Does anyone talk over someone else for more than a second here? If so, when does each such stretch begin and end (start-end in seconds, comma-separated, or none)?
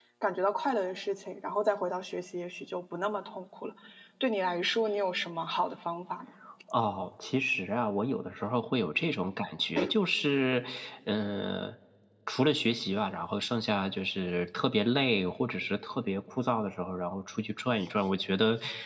none